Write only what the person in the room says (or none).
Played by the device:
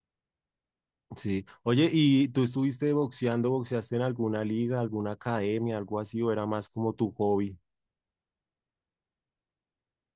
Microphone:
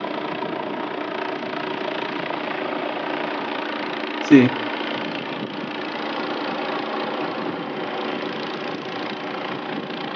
Sí.